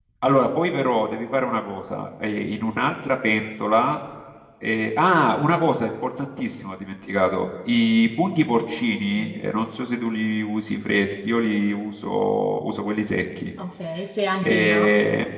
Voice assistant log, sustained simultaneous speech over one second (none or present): none